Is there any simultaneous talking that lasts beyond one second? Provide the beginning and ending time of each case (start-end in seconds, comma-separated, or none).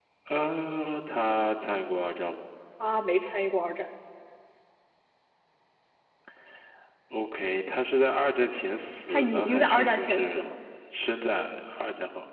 9.1-10.5